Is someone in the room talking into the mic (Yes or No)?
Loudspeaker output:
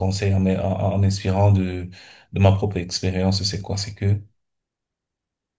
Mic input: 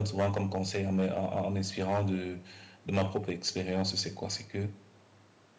No